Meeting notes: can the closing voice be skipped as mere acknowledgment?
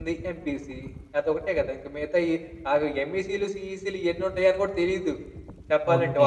No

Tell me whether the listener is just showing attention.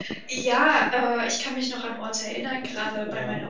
Yes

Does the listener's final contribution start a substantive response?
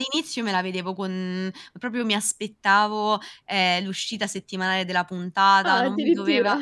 No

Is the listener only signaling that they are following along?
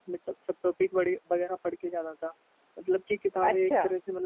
Yes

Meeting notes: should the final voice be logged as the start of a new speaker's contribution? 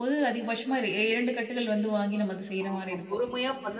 Yes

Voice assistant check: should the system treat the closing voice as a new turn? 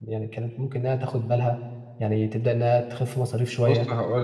Yes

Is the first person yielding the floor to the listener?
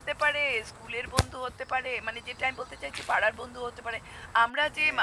No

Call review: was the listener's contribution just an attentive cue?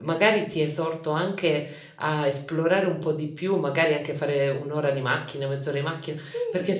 Yes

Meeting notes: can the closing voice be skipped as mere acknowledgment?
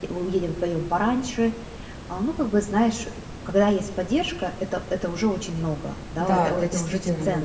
No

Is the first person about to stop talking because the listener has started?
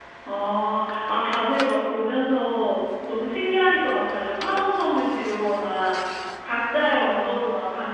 No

